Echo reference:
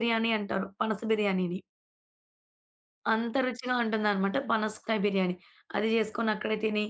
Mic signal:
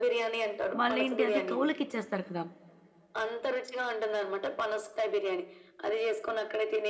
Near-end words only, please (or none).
వాళ్ళేంటి అది కౌలుకిచ్చేస్తారు కదా!